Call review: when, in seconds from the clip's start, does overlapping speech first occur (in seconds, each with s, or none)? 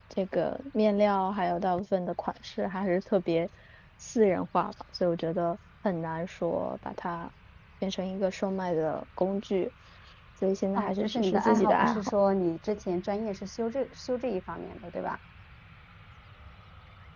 10.8 s